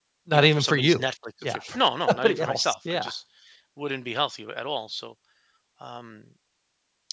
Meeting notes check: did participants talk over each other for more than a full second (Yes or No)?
Yes